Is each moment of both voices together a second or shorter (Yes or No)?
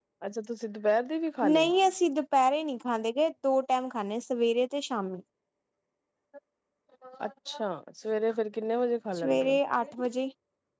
Yes